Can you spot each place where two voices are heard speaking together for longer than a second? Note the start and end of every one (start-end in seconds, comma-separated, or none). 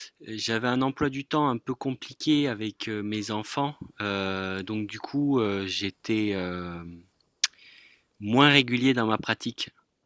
none